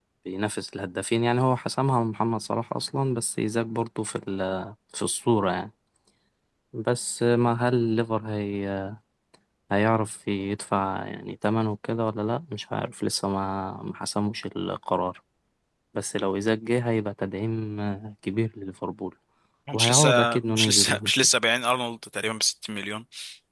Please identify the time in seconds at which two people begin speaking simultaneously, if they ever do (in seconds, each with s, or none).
19.7 s